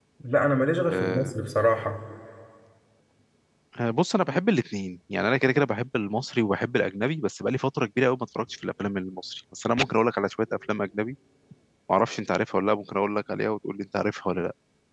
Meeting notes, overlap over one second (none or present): none